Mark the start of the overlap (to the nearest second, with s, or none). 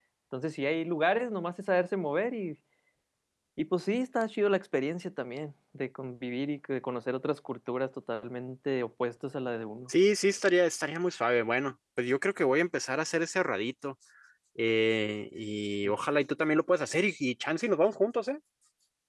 none